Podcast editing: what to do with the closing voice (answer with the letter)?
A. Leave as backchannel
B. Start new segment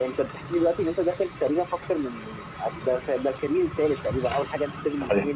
A